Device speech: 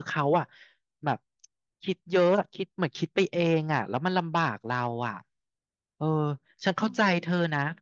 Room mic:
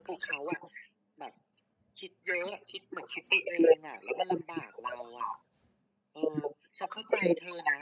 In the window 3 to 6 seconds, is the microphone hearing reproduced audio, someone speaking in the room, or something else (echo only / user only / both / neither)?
echo only